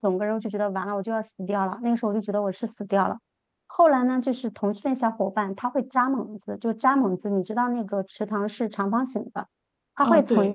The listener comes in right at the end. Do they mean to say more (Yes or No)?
No